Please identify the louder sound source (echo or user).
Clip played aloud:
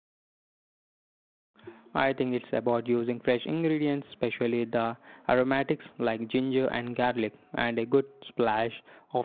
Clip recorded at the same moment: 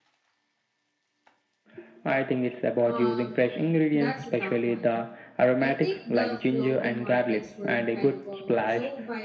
echo